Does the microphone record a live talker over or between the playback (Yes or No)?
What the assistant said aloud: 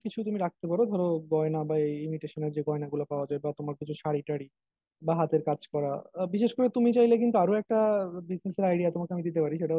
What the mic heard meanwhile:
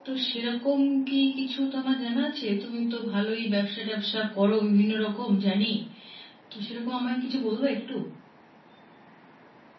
Yes